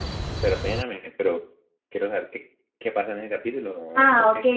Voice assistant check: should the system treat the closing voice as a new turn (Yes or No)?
Yes